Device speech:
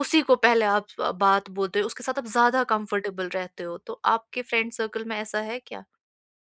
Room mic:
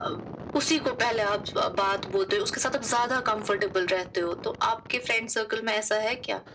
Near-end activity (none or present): none